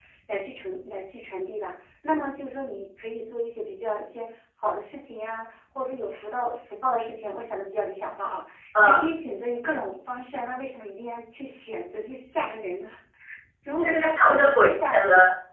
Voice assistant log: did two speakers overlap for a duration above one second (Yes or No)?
Yes